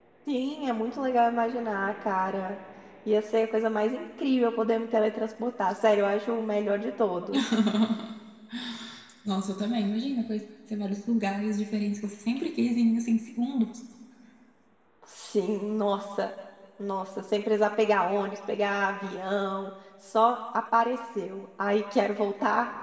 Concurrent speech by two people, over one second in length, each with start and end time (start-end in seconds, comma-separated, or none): none